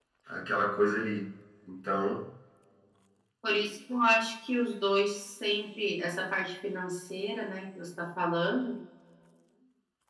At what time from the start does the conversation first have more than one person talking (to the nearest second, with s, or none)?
none